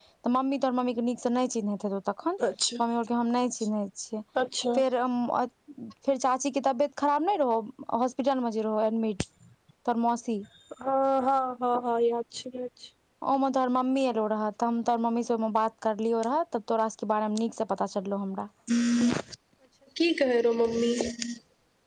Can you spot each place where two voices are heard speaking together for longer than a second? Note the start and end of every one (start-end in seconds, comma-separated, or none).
none